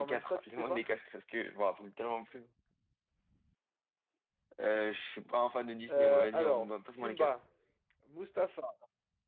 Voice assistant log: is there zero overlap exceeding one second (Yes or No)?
No